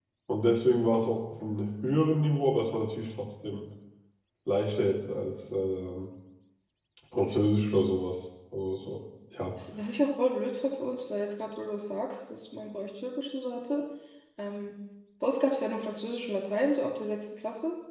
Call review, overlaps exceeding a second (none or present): none